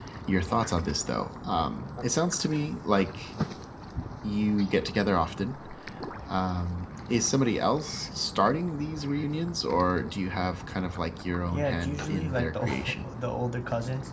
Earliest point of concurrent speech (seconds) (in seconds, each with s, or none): 11.5 s